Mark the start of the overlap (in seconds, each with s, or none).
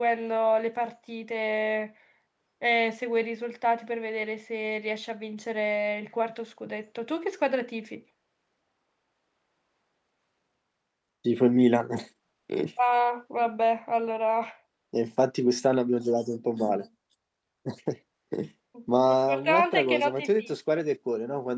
19.3 s